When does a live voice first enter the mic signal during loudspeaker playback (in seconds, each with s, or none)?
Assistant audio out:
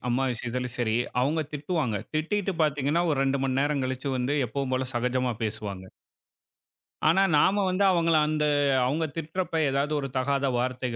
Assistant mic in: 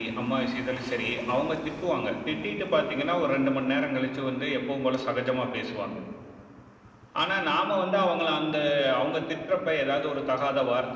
none